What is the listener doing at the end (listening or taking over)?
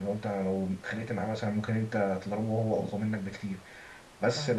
listening